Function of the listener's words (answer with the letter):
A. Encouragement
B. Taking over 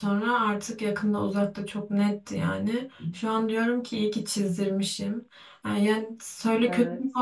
A